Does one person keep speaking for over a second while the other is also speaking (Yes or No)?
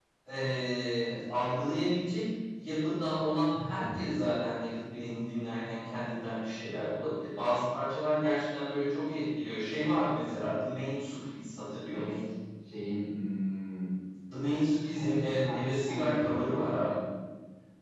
Yes